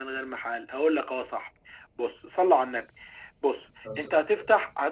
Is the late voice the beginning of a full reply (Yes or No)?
No